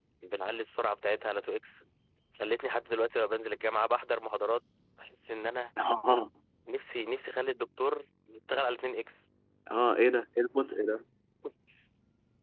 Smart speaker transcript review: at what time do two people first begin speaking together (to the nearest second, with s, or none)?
none